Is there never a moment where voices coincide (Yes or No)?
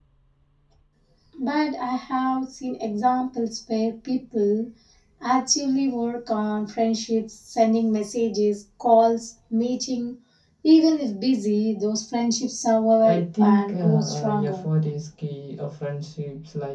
No